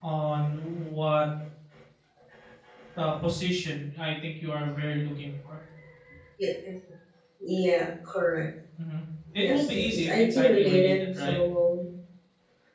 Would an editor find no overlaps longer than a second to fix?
No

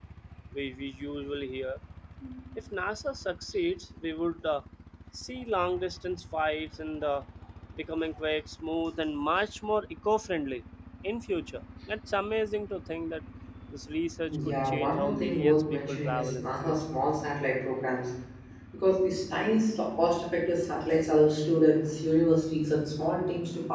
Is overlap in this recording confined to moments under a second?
No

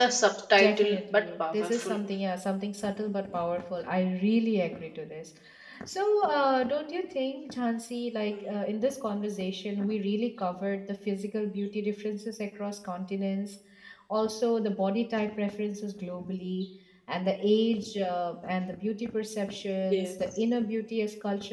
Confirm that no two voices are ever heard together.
No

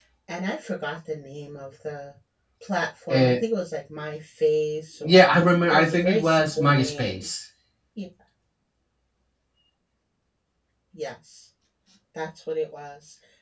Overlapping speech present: Yes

